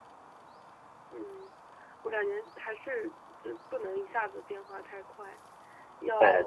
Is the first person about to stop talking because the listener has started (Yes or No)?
No